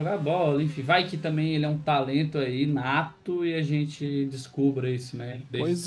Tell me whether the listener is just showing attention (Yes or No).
No